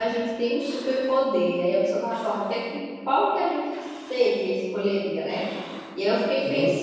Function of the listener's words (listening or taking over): listening